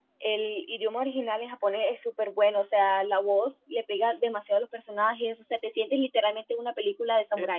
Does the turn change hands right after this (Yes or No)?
Yes